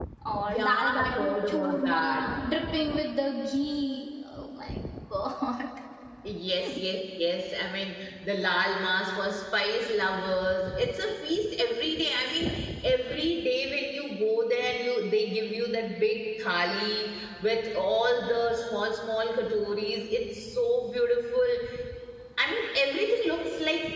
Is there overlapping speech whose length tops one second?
Yes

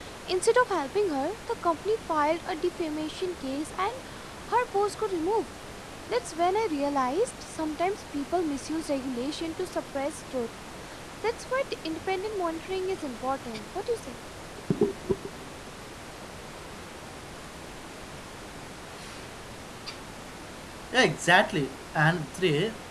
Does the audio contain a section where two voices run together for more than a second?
No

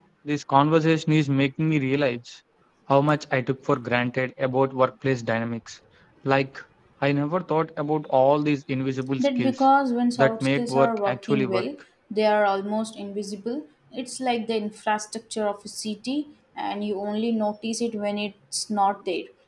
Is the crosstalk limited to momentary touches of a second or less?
No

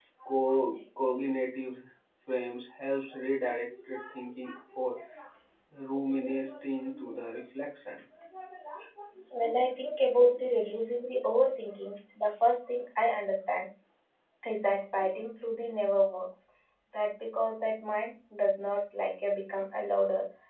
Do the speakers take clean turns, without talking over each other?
Yes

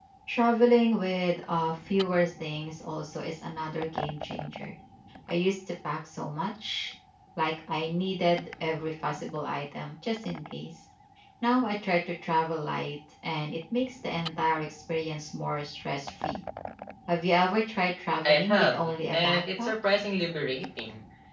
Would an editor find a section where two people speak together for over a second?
Yes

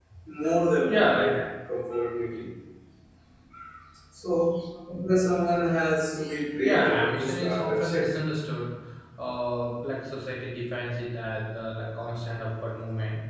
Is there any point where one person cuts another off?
Yes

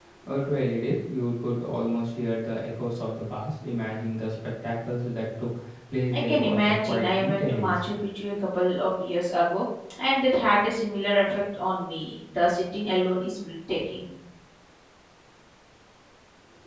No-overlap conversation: No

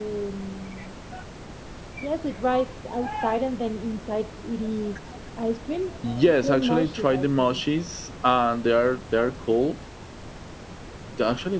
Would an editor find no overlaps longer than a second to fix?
No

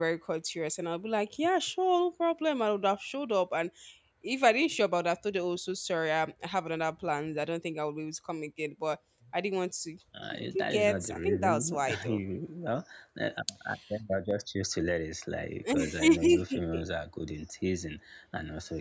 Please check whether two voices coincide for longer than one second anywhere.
Yes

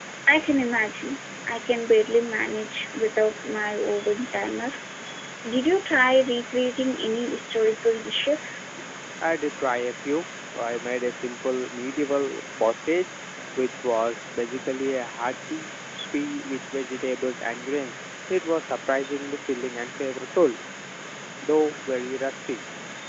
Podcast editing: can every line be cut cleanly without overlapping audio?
Yes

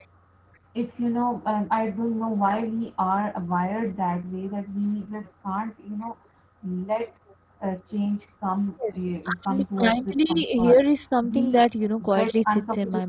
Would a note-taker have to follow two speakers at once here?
Yes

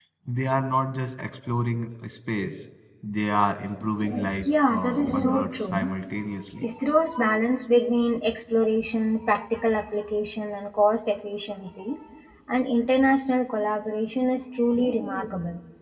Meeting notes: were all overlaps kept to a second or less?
No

